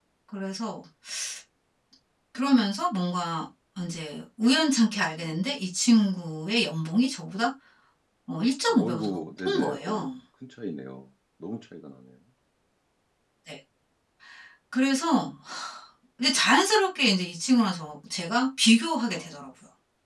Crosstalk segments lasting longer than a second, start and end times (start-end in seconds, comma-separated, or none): 8.7-10.1